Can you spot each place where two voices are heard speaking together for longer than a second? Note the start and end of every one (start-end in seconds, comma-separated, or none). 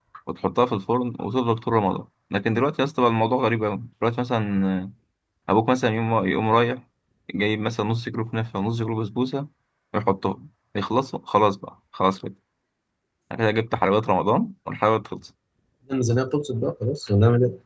none